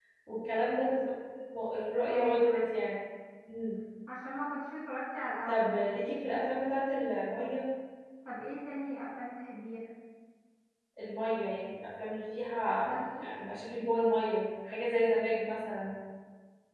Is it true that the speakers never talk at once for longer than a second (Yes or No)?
Yes